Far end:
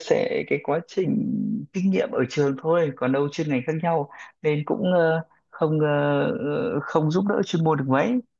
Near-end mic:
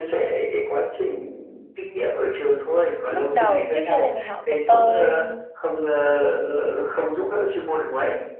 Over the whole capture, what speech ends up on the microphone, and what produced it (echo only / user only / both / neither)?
both